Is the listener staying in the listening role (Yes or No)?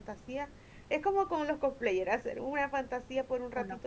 Yes